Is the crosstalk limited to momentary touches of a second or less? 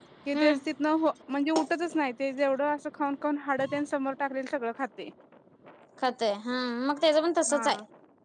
Yes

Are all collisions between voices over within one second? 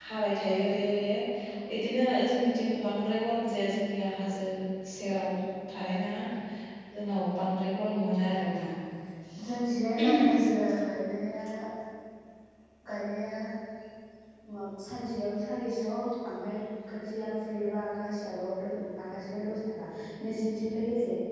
Yes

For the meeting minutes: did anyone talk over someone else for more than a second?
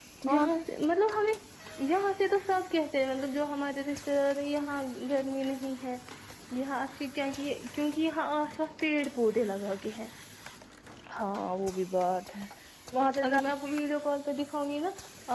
No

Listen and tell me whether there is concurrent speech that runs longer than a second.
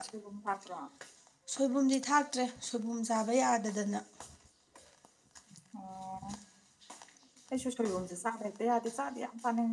No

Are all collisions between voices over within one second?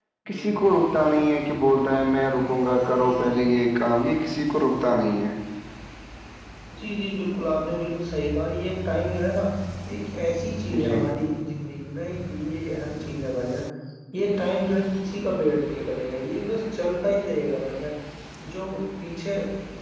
Yes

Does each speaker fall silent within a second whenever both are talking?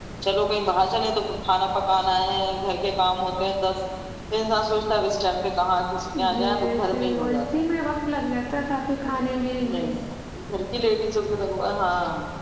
No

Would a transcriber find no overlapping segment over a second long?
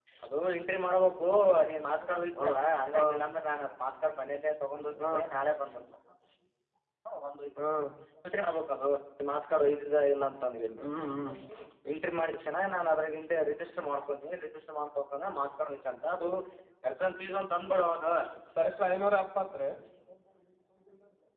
Yes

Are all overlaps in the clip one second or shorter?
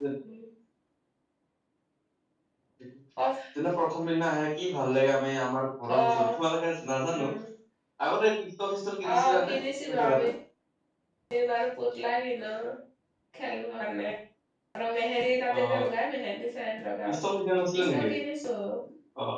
Yes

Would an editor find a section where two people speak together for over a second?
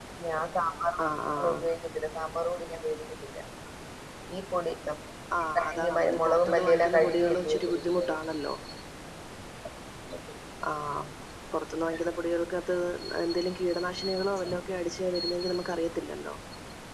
Yes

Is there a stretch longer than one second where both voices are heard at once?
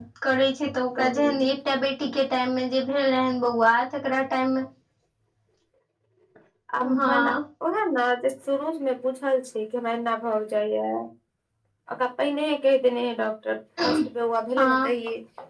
No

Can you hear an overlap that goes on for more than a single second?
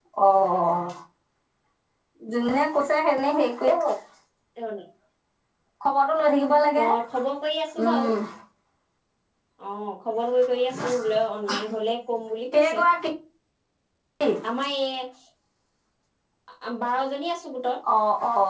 No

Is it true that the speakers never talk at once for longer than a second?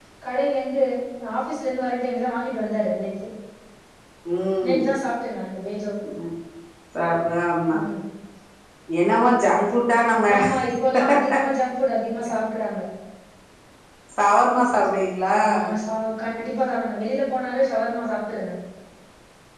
Yes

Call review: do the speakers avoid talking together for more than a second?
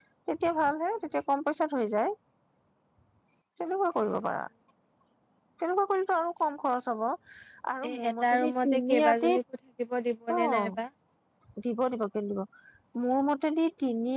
No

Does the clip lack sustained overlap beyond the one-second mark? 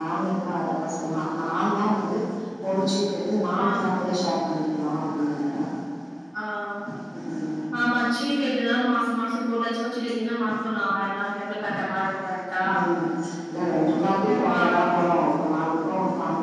Yes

